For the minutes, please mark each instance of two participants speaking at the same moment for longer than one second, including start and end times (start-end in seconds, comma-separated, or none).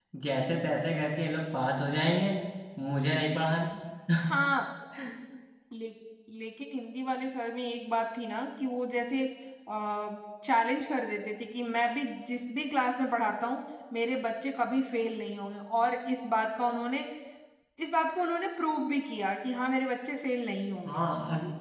none